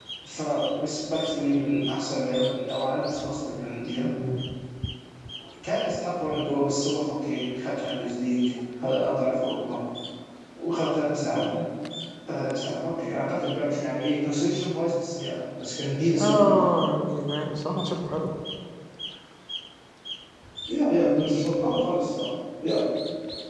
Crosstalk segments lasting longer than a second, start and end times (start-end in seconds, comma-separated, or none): none